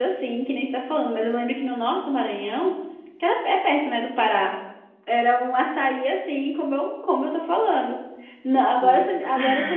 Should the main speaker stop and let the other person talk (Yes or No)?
No